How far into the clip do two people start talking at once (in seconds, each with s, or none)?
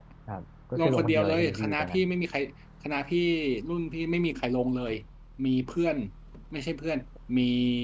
0.8 s